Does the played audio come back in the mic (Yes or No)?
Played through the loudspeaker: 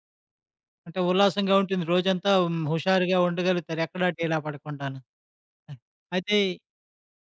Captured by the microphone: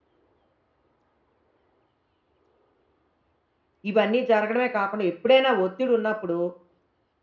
No